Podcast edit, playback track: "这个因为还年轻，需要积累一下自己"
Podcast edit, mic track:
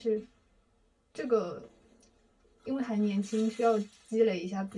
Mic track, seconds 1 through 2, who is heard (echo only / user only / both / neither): echo only